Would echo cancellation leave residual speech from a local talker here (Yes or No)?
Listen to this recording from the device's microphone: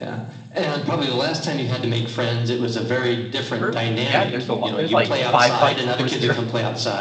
Yes